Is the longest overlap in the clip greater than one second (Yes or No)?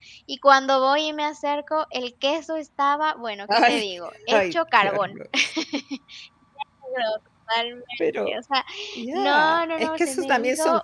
Yes